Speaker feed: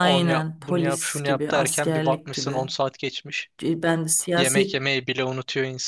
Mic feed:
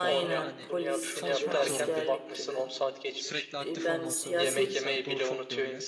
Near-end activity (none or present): present